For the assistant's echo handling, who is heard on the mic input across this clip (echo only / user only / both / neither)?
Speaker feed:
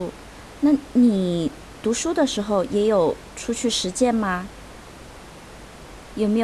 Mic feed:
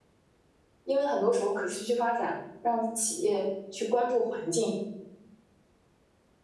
user only